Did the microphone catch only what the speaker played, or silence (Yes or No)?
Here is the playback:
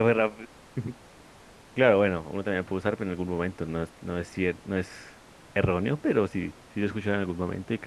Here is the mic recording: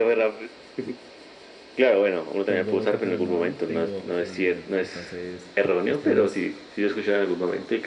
No